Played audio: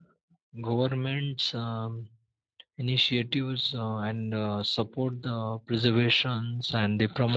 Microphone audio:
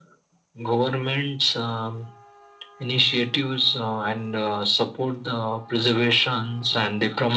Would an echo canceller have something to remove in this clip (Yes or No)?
Yes